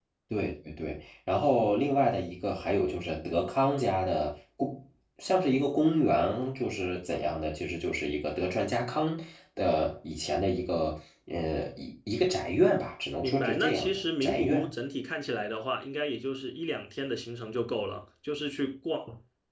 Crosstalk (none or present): present